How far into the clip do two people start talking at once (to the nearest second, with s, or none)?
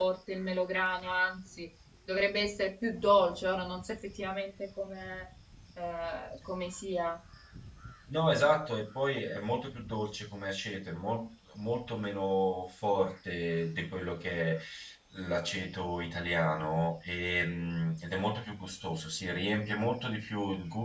none